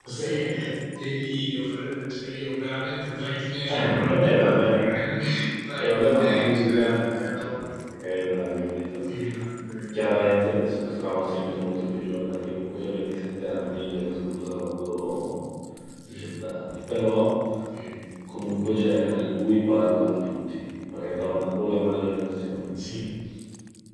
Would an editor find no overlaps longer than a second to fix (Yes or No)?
No